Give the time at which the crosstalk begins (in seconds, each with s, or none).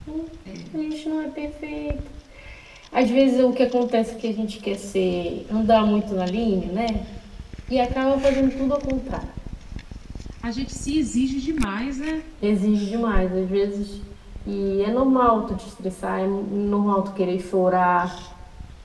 none